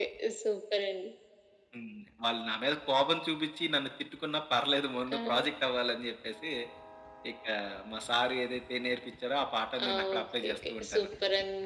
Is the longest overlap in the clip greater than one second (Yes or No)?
Yes